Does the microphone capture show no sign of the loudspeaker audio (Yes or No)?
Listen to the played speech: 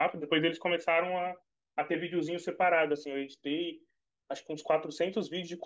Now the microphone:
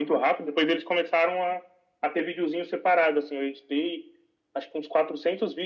No